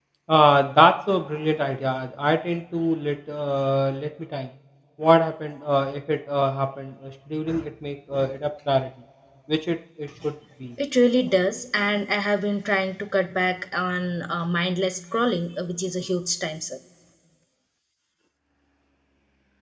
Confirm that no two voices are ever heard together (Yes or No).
Yes